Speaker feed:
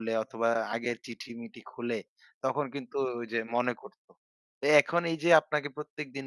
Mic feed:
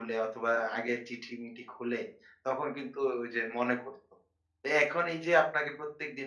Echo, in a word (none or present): present